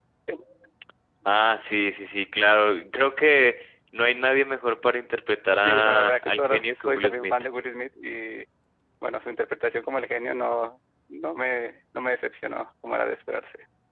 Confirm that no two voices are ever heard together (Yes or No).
No